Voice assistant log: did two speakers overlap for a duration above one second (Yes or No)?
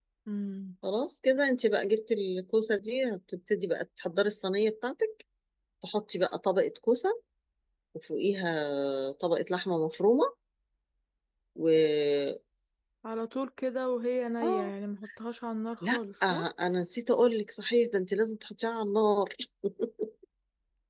No